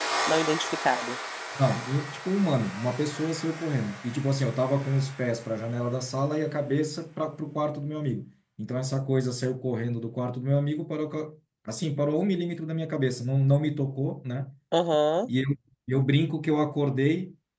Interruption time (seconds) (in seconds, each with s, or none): none